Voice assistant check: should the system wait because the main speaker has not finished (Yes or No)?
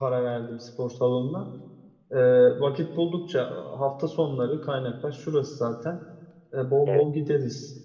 Yes